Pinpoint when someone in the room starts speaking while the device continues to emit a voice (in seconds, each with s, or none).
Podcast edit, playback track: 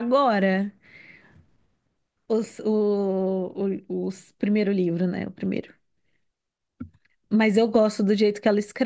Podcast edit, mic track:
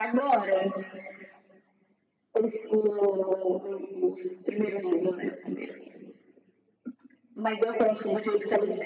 7.8 s